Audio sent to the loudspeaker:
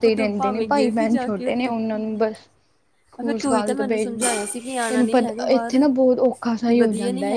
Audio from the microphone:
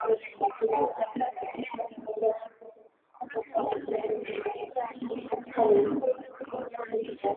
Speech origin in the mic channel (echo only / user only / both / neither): both